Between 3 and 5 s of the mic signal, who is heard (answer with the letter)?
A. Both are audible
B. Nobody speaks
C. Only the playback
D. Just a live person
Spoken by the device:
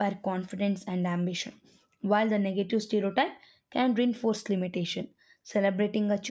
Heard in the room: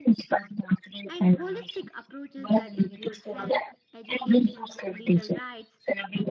A